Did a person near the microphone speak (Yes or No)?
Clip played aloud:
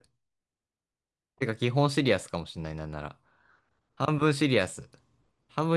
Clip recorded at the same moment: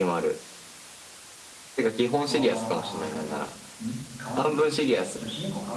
Yes